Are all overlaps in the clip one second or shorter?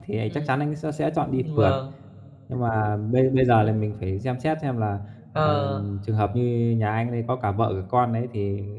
Yes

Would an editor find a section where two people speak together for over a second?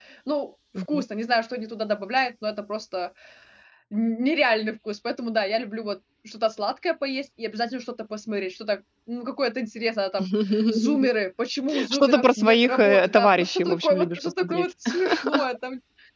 Yes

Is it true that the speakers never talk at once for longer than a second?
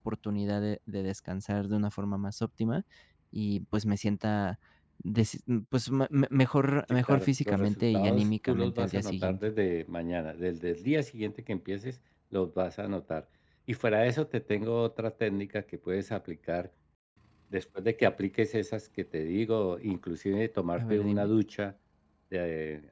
No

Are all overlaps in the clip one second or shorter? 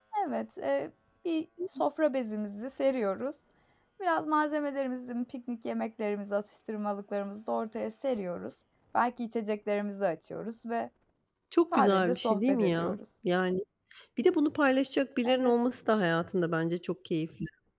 No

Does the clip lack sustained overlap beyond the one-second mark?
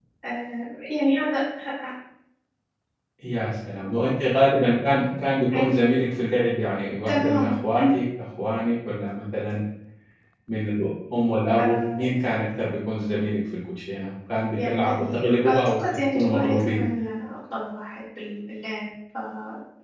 No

